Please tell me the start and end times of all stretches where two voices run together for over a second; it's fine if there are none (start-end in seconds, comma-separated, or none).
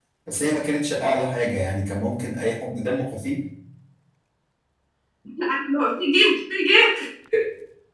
none